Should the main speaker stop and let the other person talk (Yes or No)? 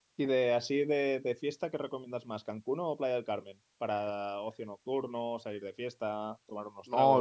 Yes